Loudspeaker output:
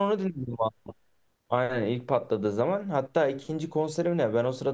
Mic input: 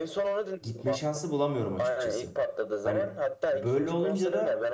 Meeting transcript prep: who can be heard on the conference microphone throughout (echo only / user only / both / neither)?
both